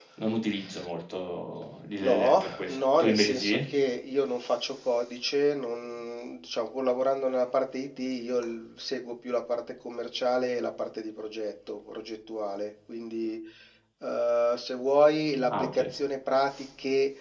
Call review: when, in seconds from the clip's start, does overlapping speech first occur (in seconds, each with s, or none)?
2.0 s